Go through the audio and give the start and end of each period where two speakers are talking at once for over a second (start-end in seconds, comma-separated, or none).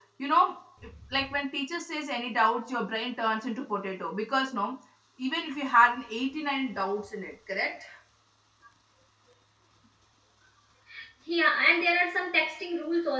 none